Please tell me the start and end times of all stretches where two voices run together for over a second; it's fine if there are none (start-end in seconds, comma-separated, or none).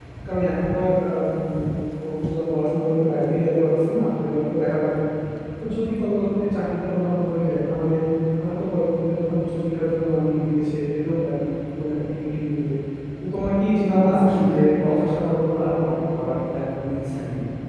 14.0-16.3